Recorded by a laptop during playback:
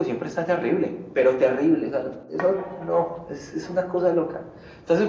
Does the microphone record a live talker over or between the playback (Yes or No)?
No